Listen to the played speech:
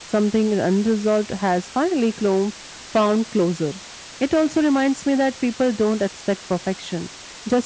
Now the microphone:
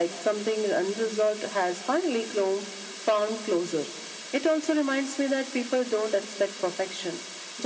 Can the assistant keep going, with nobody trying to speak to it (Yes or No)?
Yes